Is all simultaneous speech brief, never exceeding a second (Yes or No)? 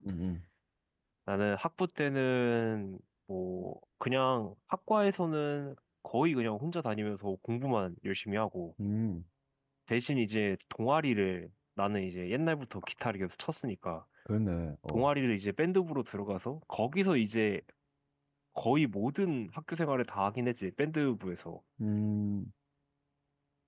Yes